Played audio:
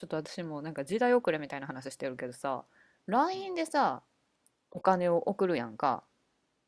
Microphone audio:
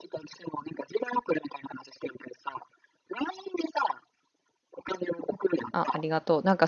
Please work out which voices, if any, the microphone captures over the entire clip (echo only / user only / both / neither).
both